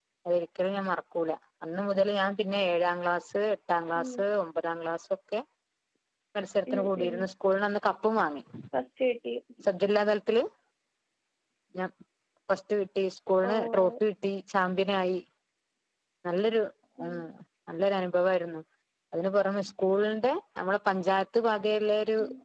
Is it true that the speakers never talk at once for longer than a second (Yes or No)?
Yes